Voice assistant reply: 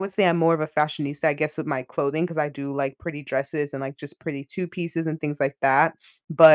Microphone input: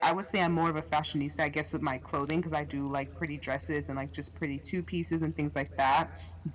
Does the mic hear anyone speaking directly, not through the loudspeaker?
No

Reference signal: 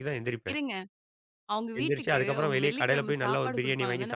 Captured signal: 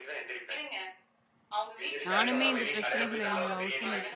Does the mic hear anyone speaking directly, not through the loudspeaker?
Yes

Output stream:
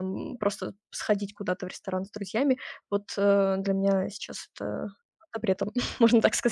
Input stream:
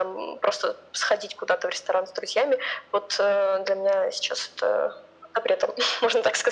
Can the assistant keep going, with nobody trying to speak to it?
Yes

